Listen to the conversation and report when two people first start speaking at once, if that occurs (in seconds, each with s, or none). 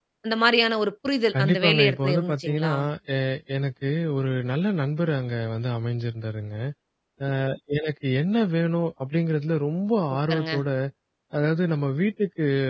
1.4 s